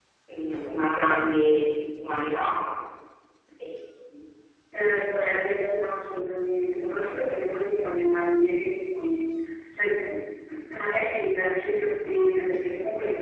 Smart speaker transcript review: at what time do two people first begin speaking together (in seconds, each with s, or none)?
none